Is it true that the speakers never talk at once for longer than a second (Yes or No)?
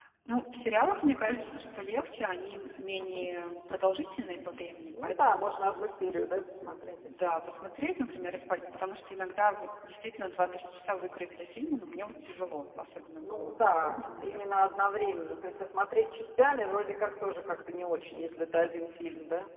No